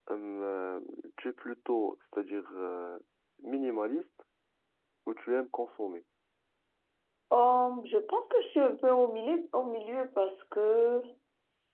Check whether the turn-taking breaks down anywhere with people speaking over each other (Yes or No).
No